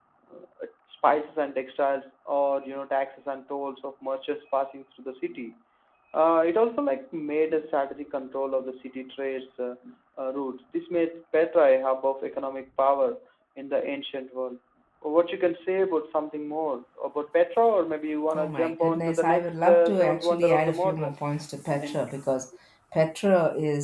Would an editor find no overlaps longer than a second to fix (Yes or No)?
No